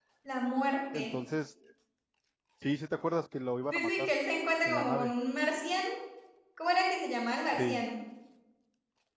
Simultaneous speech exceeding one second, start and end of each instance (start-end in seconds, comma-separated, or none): none